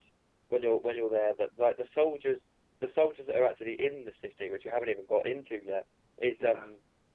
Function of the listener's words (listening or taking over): listening